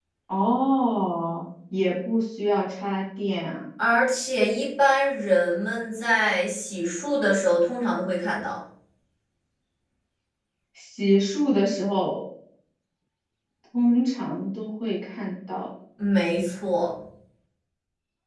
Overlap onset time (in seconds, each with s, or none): none